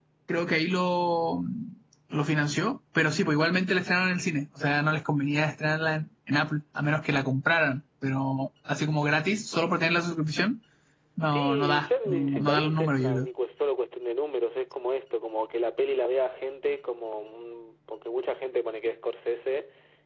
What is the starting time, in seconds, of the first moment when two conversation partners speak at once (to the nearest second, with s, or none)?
11 s